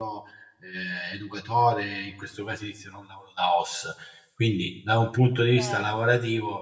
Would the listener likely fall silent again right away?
Yes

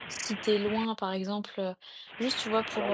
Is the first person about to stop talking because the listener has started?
No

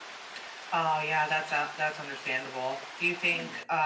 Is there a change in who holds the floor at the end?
No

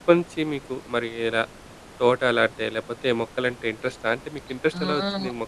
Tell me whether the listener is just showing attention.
No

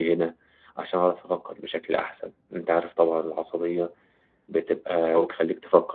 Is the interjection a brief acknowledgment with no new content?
Yes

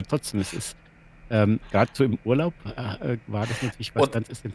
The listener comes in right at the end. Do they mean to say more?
No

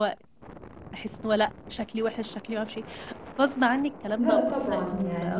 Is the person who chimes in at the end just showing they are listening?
No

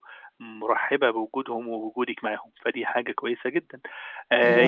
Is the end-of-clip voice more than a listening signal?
No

